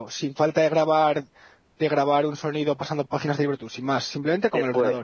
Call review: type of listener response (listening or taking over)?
taking over